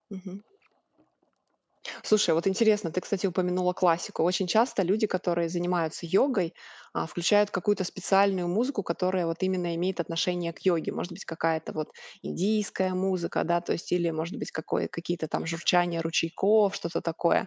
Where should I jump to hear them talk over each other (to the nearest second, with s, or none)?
none